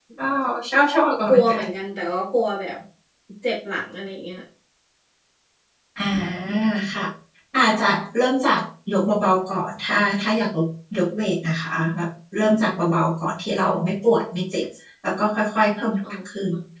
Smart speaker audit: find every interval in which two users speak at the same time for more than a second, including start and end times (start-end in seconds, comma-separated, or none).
none